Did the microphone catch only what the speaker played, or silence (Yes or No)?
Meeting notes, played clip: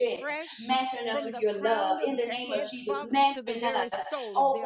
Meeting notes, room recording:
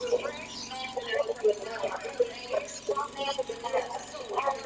Yes